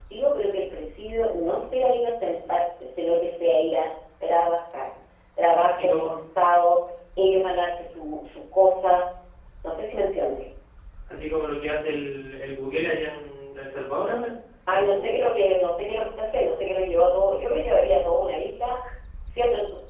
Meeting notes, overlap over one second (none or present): none